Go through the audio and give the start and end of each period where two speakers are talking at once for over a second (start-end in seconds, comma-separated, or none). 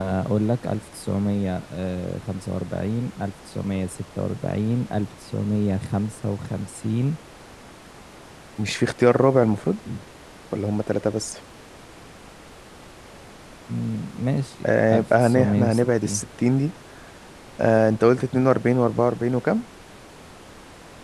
14.9-16.3